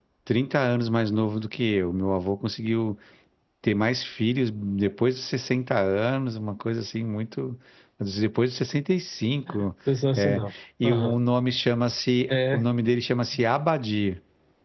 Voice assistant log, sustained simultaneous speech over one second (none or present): none